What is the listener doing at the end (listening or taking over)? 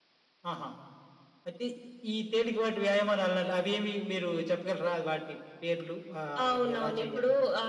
taking over